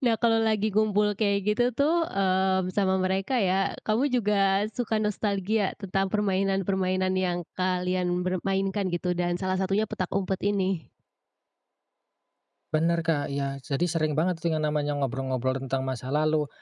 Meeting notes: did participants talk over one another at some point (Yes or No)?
No